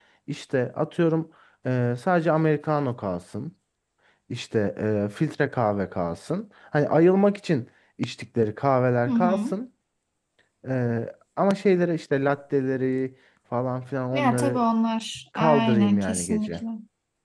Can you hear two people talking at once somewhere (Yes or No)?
Yes